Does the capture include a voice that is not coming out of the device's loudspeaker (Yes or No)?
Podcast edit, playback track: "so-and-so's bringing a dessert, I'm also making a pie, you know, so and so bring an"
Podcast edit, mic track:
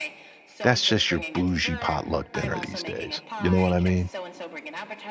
Yes